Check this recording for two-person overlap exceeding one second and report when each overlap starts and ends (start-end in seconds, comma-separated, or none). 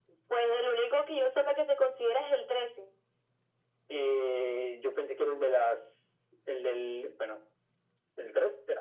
none